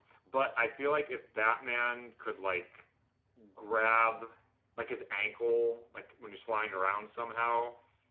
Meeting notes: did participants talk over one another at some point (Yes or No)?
No